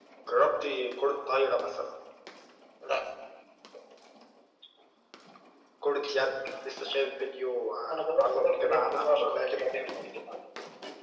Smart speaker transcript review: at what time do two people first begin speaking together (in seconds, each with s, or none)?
7.9 s